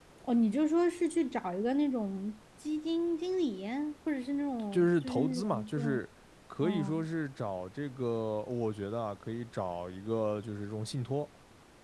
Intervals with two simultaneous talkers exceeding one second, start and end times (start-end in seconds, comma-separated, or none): 4.7-6.0